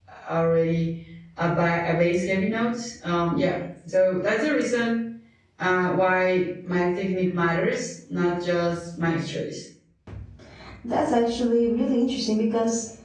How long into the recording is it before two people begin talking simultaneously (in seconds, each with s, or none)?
none